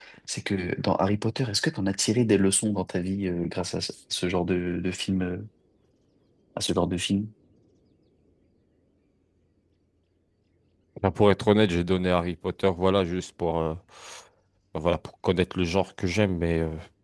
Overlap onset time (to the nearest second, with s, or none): none